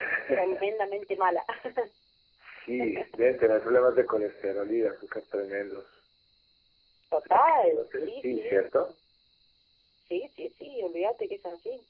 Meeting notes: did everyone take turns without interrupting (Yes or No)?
No